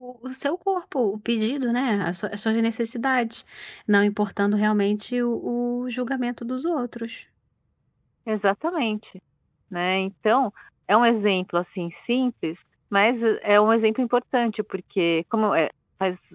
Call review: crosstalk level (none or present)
none